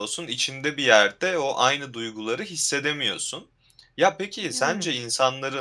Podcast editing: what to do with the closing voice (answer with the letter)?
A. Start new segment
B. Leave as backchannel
B